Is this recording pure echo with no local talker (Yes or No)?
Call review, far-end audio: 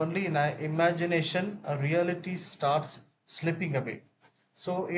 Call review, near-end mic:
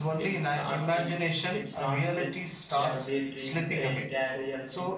No